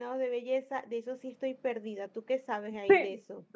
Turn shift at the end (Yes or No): Yes